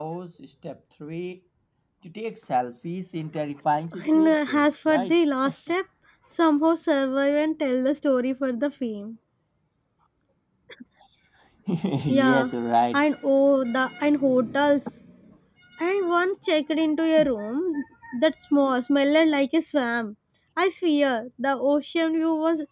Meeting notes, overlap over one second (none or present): present